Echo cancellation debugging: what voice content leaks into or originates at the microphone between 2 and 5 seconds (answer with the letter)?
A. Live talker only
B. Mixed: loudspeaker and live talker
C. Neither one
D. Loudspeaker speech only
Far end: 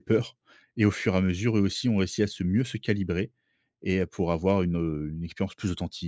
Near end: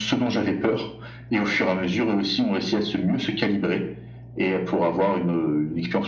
D